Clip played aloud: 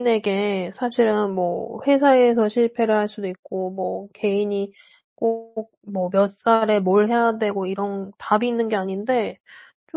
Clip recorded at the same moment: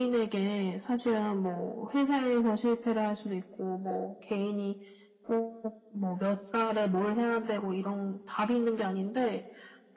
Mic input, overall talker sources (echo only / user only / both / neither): echo only